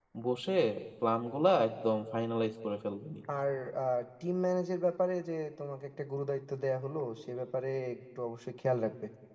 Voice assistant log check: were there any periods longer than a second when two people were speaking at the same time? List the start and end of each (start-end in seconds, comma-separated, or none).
none